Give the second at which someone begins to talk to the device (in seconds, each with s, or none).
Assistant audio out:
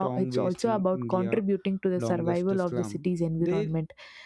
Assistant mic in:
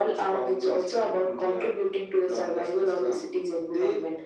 none